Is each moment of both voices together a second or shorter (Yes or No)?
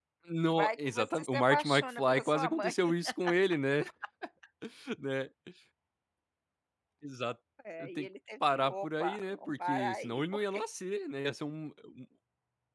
No